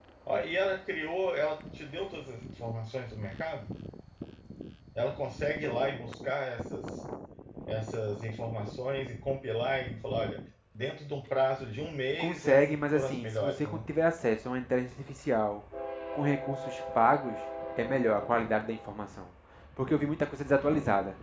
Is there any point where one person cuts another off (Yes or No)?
Yes